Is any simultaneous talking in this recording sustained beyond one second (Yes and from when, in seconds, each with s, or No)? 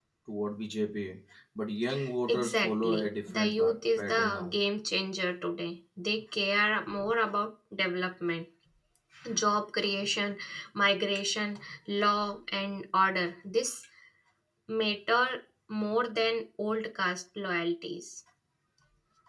Yes, from 2.3 s